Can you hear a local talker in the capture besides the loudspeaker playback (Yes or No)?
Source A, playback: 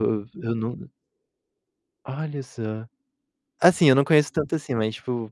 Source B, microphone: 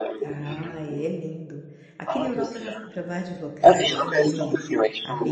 Yes